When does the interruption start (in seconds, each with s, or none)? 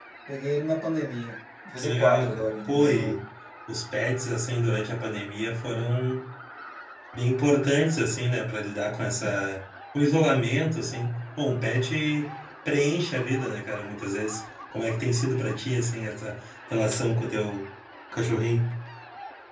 1.8 s